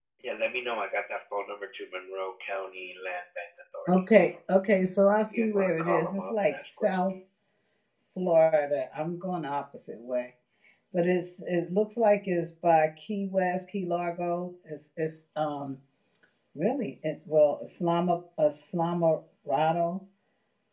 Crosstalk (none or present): present